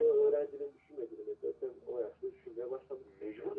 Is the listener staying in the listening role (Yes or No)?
No